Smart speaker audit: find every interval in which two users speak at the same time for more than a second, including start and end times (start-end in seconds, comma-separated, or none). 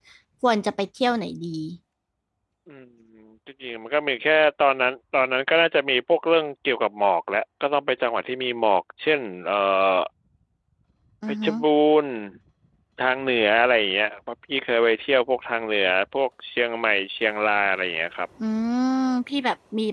none